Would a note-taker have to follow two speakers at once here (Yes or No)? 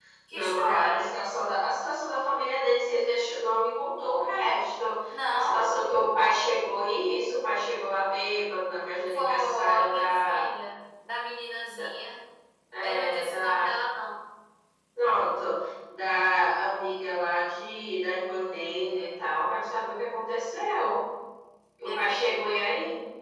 Yes